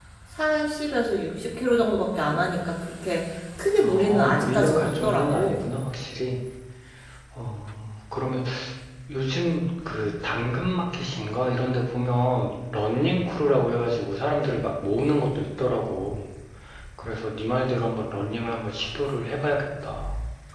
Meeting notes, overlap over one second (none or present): present